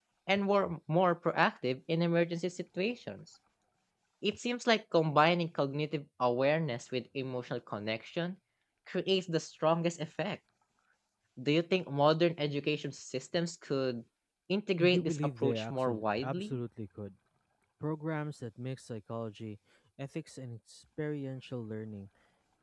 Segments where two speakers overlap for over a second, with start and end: 14.8-16.6

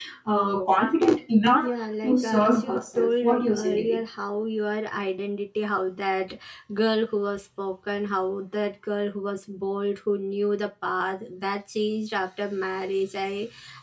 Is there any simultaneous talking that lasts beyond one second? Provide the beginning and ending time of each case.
2.0-4.0

